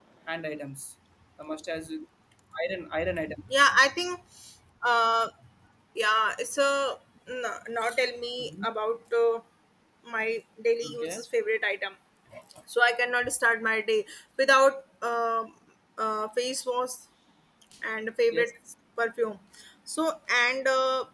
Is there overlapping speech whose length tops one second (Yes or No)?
No